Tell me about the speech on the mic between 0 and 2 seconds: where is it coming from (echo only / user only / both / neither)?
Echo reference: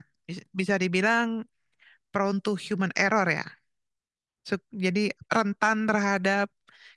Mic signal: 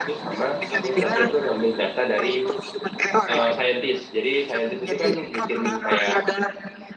both